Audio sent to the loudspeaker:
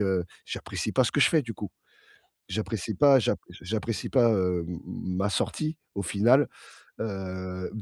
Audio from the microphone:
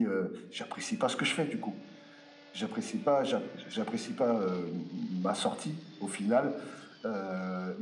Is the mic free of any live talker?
Yes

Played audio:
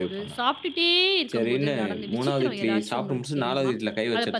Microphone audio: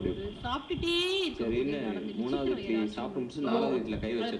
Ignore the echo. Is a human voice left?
Yes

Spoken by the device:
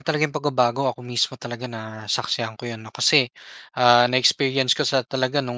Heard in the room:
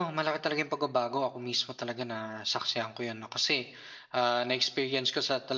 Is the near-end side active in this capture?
No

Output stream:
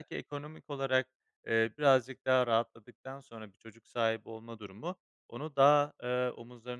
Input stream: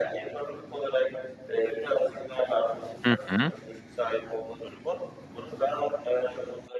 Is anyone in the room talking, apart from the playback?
Yes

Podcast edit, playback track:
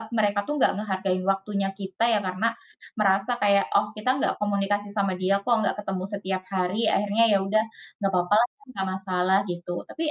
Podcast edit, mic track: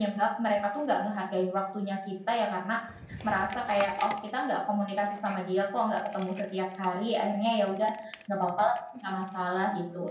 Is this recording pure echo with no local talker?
Yes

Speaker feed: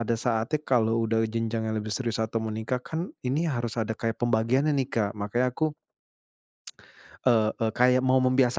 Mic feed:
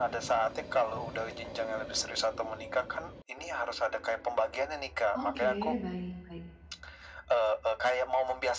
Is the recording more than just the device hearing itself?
Yes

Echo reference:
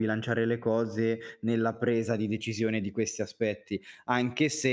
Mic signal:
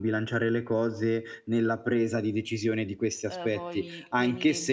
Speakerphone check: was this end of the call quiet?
No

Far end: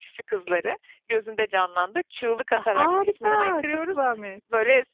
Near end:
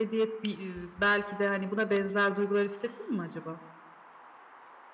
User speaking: Yes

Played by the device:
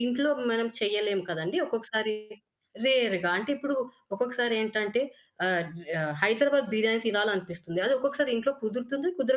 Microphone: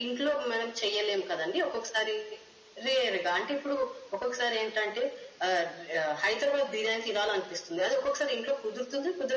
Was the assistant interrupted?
No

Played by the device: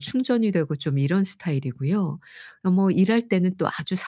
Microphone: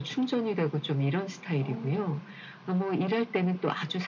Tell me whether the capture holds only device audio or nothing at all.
No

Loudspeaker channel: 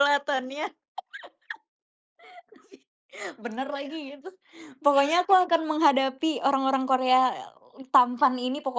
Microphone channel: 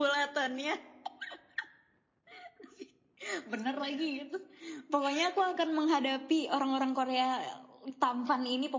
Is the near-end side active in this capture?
No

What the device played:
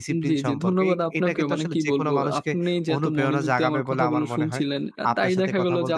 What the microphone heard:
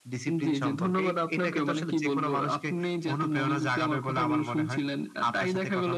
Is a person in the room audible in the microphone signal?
No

